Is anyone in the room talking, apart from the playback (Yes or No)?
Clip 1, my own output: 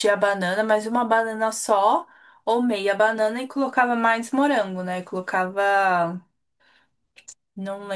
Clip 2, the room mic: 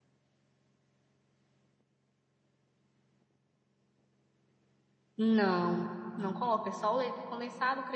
Yes